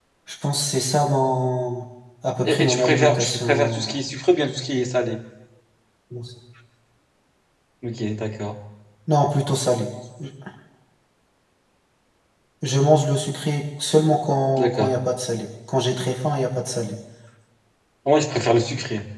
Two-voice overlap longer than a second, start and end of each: 2.5-4.0

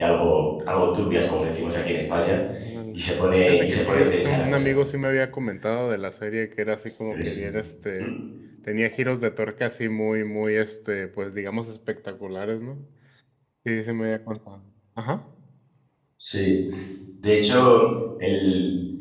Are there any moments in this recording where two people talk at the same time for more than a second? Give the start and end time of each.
3.5-4.7

